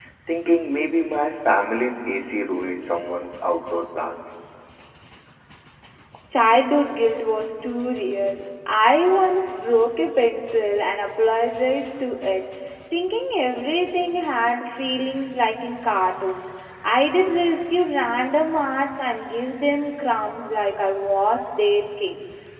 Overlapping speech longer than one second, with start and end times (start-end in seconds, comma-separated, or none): none